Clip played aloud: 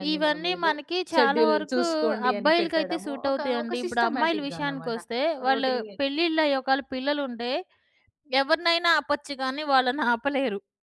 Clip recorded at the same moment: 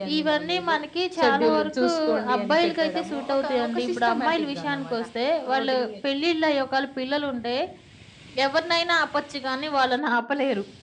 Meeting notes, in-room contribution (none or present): none